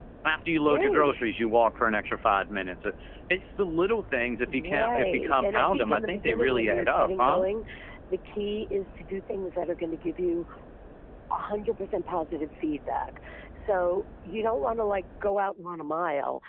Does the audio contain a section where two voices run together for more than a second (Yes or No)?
Yes